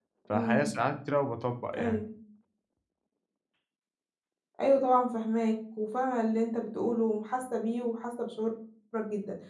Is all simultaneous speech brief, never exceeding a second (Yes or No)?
Yes